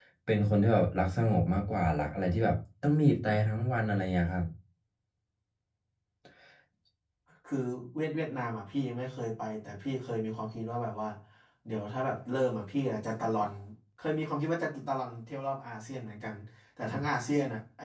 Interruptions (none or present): none